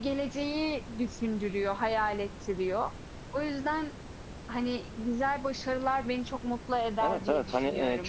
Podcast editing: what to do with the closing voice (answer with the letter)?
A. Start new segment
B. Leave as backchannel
A